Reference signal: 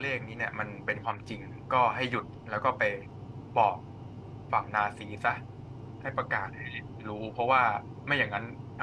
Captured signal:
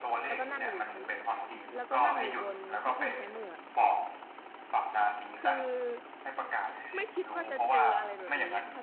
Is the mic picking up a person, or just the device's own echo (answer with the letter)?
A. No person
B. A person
B